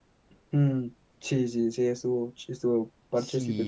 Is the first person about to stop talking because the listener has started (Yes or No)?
Yes